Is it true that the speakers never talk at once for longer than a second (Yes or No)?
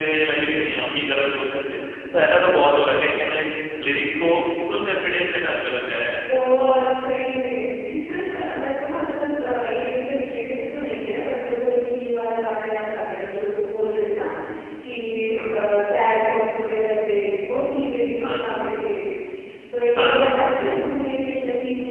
Yes